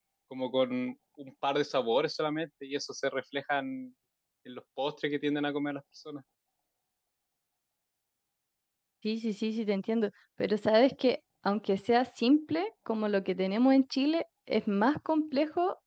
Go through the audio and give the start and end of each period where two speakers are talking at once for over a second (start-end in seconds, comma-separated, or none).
none